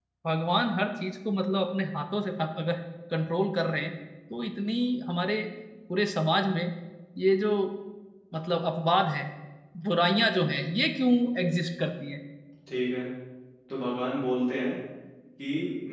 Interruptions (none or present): none